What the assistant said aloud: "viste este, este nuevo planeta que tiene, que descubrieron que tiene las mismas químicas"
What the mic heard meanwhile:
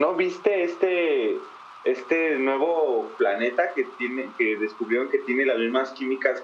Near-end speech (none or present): none